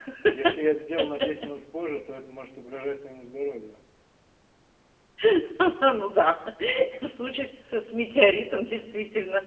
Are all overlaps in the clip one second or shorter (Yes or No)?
Yes